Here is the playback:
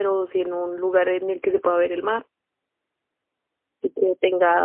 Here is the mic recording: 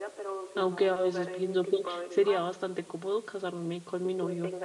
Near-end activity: present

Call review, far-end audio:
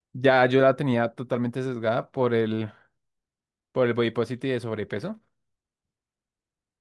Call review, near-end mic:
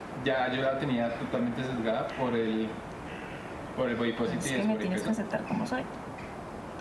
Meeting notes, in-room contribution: present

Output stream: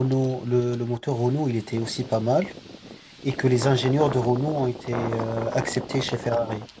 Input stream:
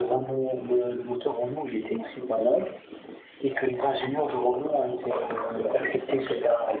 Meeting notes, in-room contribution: none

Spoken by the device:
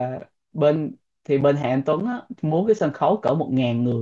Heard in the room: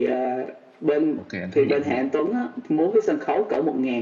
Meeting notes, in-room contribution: present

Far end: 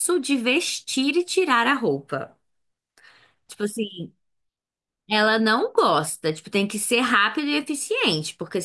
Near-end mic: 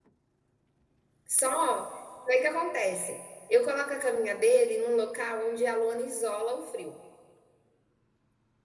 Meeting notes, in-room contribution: present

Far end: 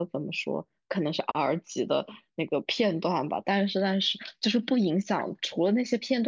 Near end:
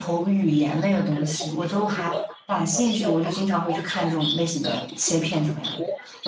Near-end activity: present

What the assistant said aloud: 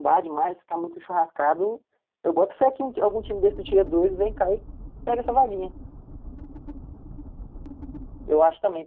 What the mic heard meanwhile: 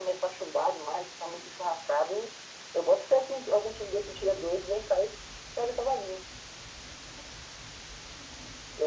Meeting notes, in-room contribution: none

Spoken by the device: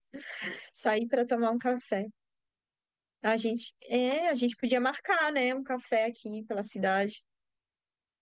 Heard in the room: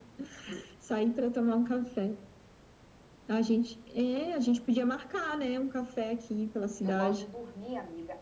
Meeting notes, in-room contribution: present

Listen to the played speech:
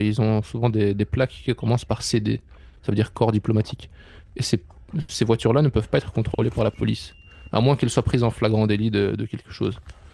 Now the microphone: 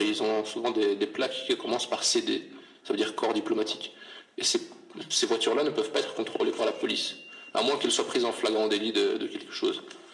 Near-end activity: none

